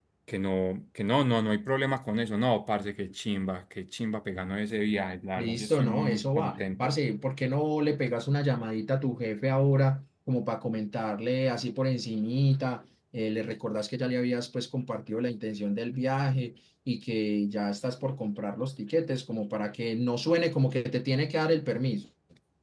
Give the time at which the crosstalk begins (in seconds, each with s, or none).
5.4 s